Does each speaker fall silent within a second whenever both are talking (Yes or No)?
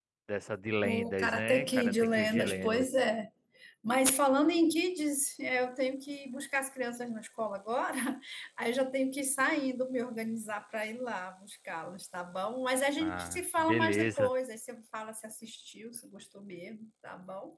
No